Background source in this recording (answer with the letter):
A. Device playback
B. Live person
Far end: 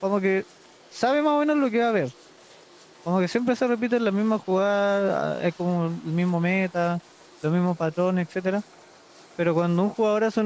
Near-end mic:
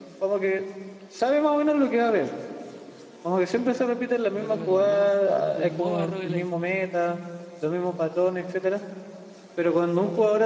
B